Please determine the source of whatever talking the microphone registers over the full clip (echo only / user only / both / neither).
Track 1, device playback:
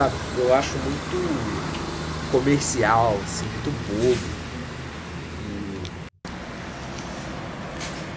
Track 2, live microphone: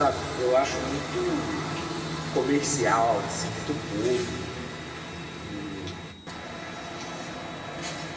echo only